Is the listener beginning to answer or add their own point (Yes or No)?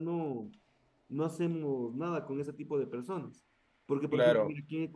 No